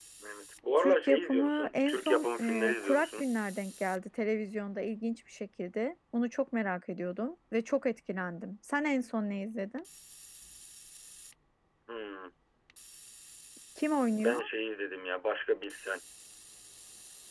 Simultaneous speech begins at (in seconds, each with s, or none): 0.8 s